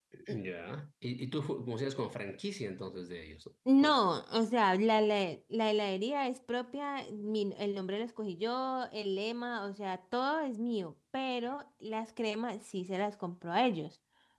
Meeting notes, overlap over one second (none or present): none